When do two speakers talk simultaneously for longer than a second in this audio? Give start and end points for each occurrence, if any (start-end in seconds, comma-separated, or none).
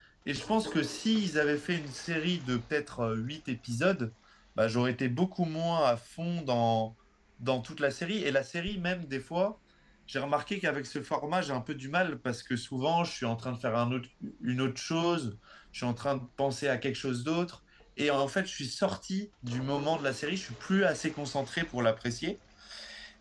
none